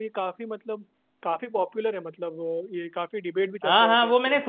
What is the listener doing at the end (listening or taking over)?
taking over